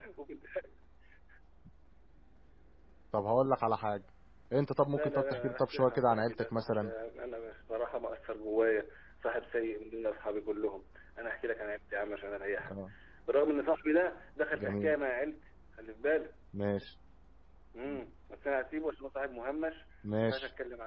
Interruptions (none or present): present